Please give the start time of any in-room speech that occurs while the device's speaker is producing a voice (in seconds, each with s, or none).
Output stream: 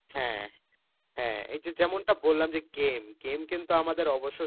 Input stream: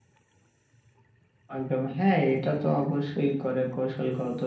1.6 s